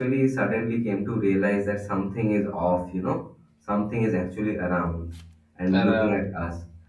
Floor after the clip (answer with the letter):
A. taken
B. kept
B